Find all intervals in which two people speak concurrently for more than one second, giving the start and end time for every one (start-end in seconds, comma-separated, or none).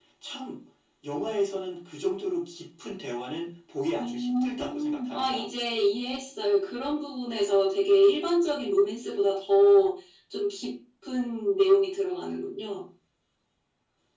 4.0-5.5